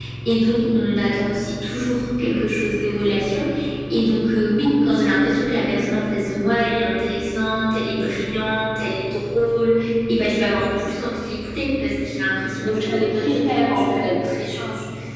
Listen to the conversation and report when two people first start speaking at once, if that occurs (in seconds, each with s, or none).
12.6 s